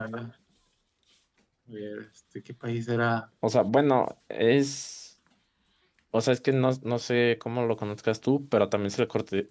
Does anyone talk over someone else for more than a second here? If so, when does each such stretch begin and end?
none

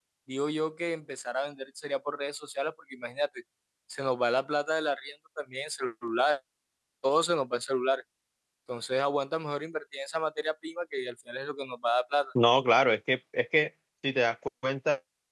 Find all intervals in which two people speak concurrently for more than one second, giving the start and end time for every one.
none

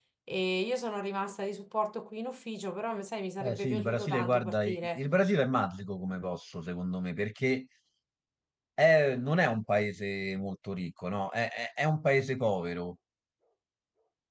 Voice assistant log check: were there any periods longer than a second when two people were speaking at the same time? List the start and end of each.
3.4-5.0

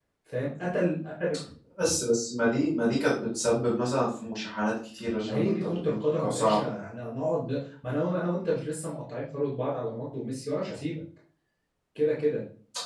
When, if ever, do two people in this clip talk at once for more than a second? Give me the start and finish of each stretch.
5.2-6.7

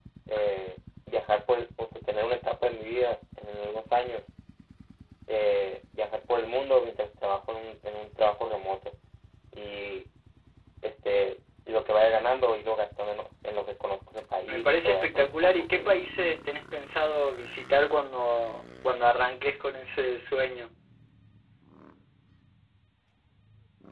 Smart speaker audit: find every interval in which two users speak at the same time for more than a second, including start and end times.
14.5-15.9

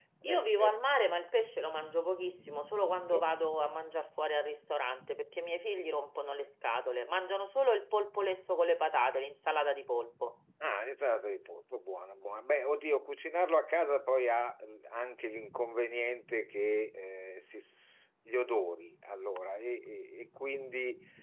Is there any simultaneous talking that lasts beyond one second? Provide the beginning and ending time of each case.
none

